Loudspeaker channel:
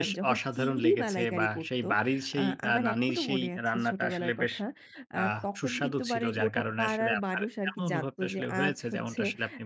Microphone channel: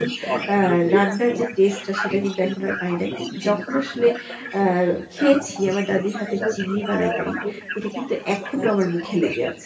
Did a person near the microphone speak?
Yes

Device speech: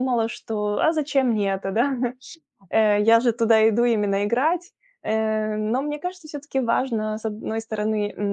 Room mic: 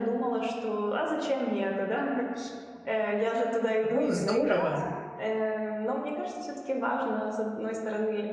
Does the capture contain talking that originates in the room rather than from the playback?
Yes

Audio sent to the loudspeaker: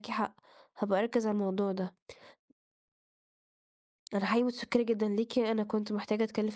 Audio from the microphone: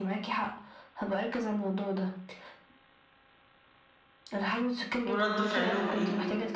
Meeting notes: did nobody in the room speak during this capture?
No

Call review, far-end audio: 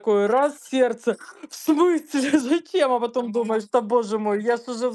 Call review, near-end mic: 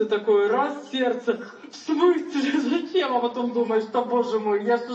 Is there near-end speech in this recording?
No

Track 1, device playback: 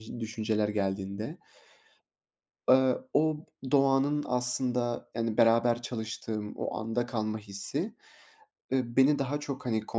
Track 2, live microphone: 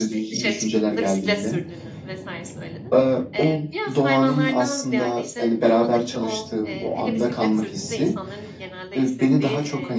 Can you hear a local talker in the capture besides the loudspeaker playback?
Yes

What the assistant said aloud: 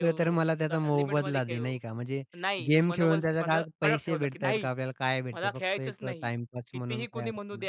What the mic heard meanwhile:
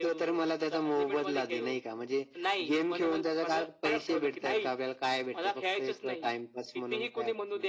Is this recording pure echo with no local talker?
Yes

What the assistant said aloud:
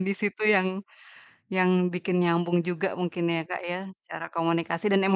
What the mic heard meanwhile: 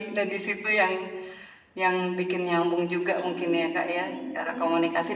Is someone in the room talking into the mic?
Yes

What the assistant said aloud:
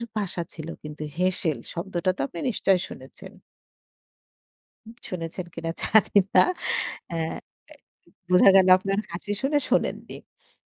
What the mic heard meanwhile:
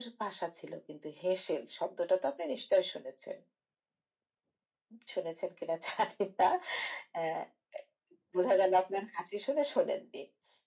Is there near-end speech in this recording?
No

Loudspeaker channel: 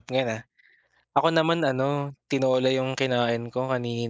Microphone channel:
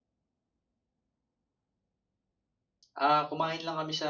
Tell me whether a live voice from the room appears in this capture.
Yes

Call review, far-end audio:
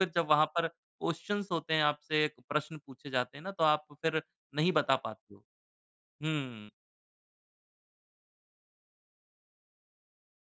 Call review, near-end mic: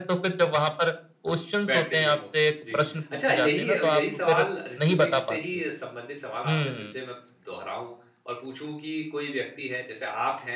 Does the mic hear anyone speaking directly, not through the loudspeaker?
Yes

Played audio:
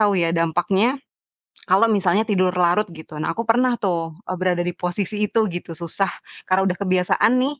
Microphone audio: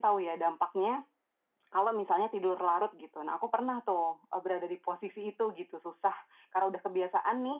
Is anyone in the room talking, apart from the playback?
No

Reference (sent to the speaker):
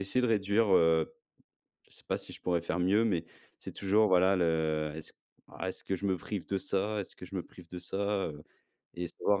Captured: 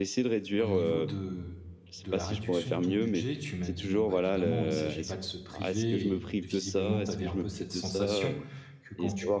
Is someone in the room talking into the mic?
Yes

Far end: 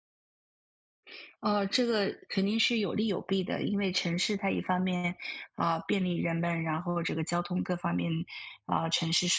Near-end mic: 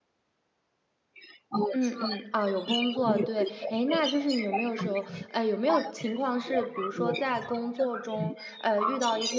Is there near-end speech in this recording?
Yes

